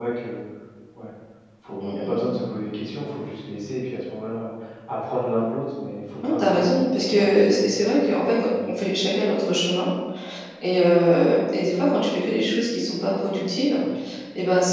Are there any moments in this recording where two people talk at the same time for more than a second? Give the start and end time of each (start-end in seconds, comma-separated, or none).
6.3-7.7